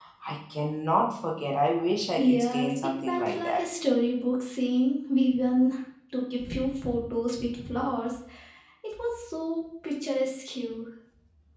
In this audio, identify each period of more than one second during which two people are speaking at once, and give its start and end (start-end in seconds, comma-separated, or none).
2.2-3.7